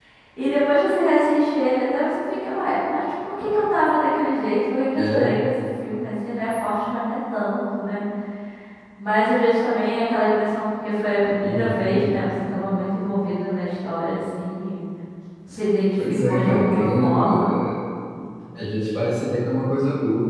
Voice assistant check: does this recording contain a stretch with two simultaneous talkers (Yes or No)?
Yes